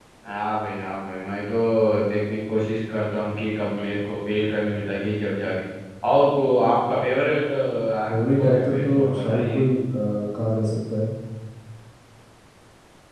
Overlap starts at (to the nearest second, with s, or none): 8 s